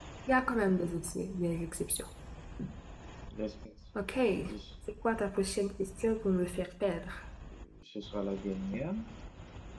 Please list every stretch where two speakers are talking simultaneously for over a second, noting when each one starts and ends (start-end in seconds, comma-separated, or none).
none